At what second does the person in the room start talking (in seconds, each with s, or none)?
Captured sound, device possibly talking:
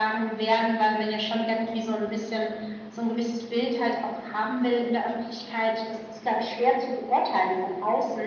none